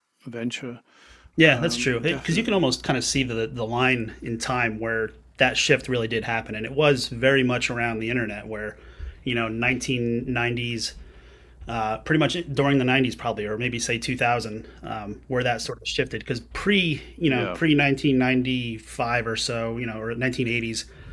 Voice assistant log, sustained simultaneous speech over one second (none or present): present